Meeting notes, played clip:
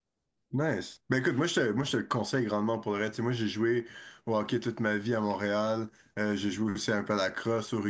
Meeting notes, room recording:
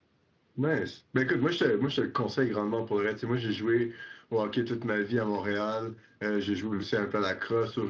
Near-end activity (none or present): none